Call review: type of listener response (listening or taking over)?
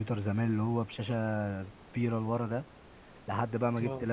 listening